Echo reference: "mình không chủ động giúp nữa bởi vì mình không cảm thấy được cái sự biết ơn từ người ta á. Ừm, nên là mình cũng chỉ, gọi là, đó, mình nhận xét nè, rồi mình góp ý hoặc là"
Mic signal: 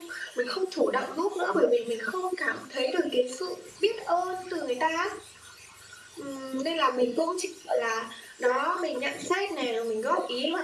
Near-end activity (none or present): none